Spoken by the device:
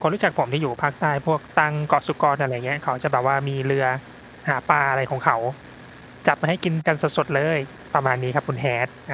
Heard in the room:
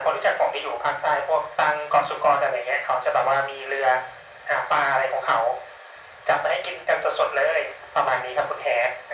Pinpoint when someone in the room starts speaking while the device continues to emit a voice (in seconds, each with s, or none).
none